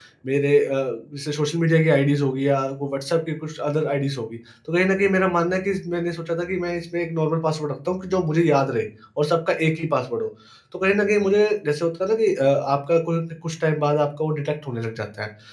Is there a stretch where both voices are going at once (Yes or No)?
No